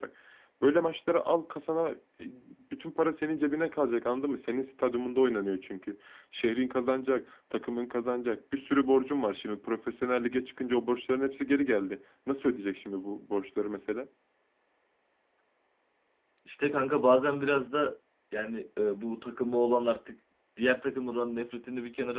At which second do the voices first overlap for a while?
none

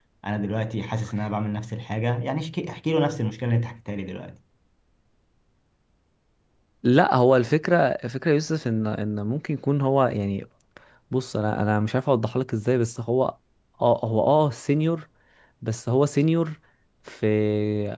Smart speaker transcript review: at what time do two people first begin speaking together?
none

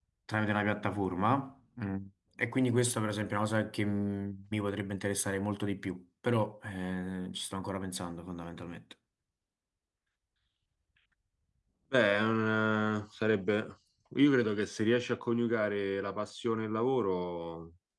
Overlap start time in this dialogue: none

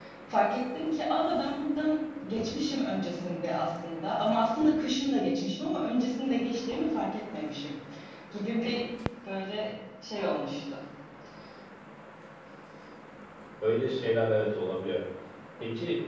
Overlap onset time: none

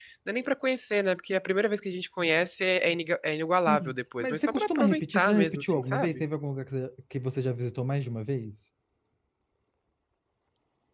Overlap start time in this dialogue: 3.7 s

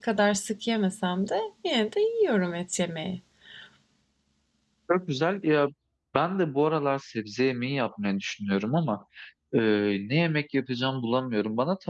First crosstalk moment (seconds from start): none

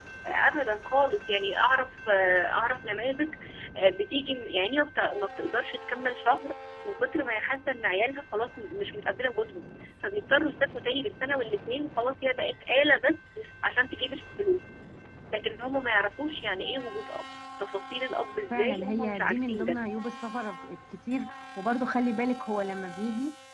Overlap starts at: 18.5 s

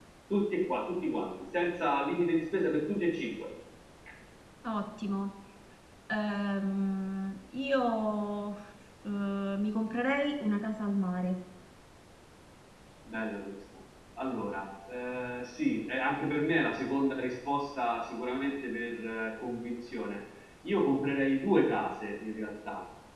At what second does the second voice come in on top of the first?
none

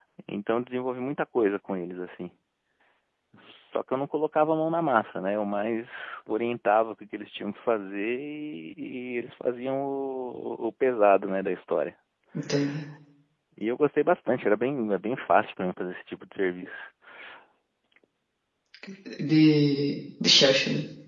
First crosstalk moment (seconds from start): none

